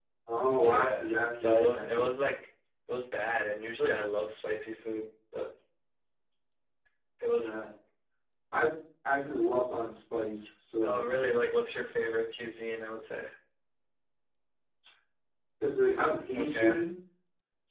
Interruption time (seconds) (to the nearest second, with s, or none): 1 s